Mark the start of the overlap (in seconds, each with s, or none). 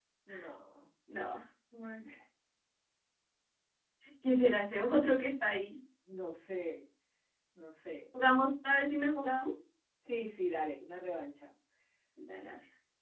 none